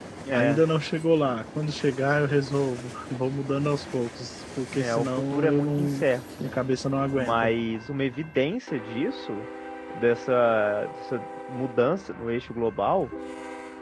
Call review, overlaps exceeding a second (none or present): present